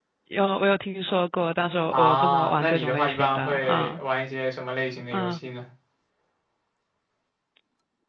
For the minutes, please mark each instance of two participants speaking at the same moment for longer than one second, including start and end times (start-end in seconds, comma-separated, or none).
1.9-4.0